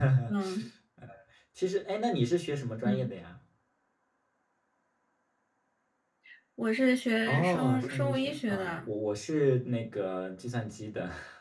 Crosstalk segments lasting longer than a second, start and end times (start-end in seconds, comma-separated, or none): 7.2-8.8